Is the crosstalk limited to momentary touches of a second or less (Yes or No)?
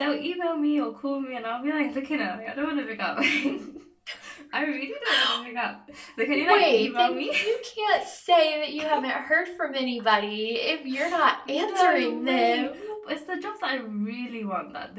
No